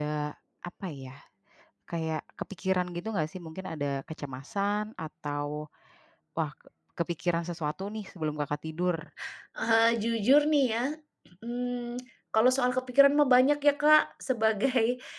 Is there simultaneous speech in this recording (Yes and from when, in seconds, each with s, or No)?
No